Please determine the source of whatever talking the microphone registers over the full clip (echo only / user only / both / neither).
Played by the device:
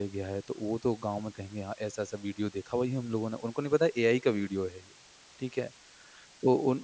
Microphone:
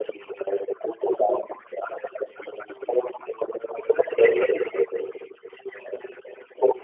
both